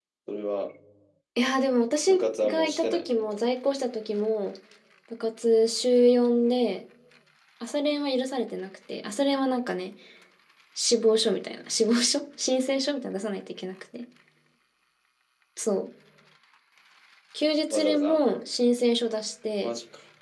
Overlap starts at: 2 s

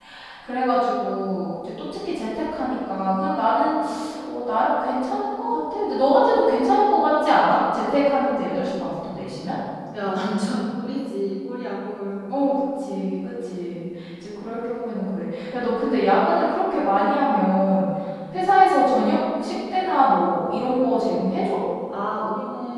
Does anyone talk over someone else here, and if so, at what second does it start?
none

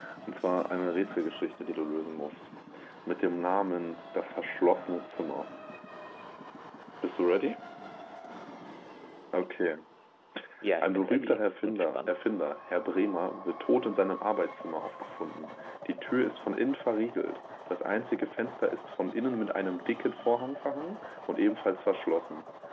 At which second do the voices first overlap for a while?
11 s

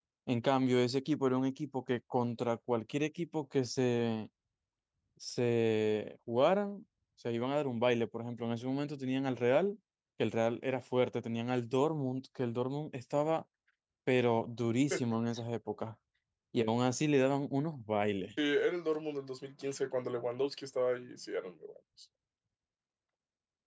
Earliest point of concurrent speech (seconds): none

